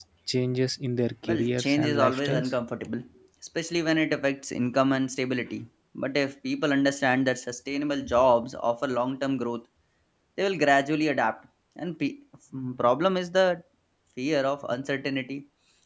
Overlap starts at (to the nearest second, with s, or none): 1 s